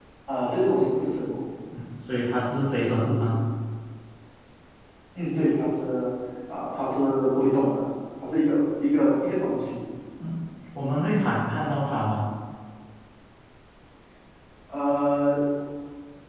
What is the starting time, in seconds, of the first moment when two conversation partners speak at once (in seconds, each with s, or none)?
none